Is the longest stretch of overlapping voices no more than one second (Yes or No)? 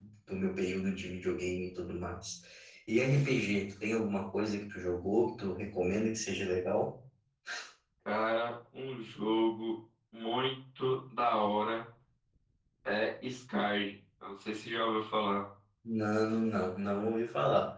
Yes